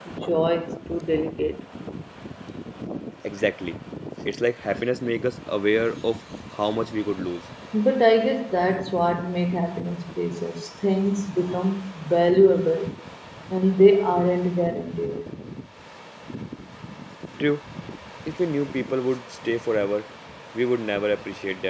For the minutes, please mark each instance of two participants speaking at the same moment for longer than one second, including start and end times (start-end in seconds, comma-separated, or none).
none